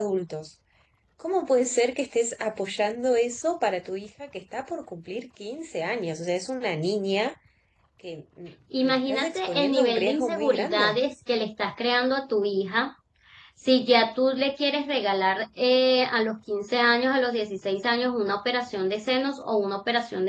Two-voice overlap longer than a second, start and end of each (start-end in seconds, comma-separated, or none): 8.9-11.0